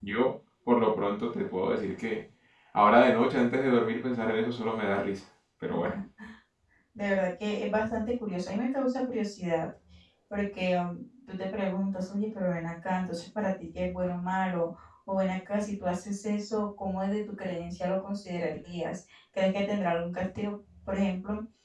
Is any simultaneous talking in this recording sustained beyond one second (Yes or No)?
No